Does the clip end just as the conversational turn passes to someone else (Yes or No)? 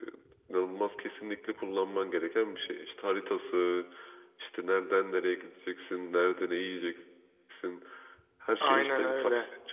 No